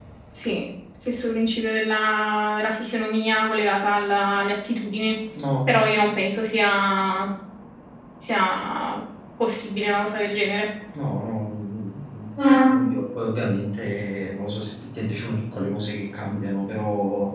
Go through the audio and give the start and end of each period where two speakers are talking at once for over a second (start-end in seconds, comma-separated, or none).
none